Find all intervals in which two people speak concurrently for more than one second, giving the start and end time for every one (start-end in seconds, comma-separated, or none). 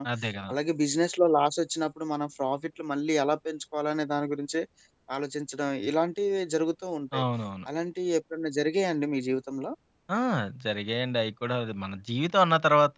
none